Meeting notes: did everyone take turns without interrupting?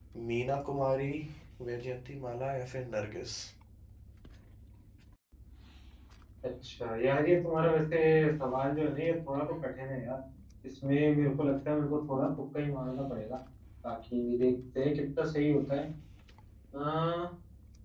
Yes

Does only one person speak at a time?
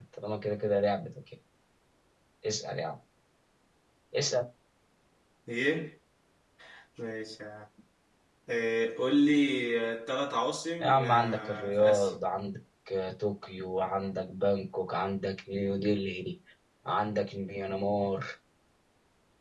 No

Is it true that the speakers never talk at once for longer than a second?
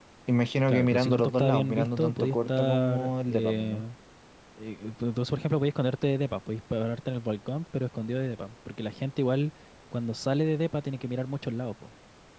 No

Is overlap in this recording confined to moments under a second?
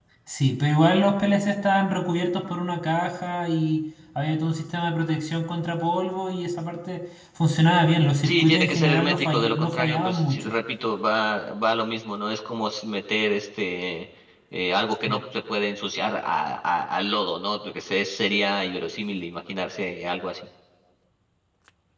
No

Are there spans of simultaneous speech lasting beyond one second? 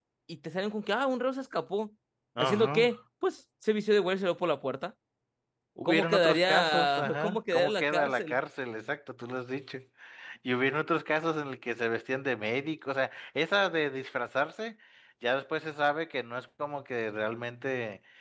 Yes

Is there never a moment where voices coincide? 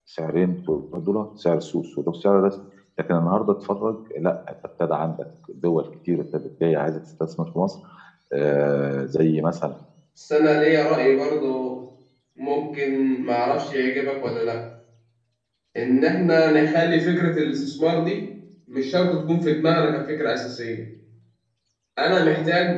Yes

